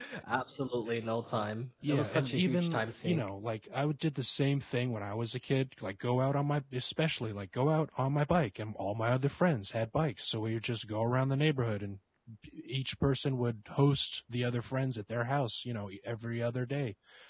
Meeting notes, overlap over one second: present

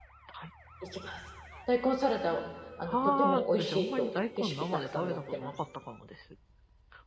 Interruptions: present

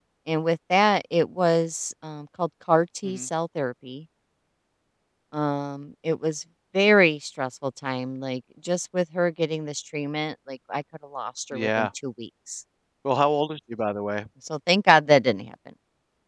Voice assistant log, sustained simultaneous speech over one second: none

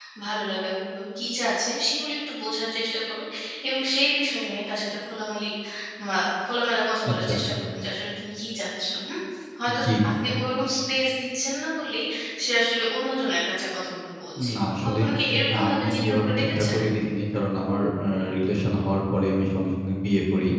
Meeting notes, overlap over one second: present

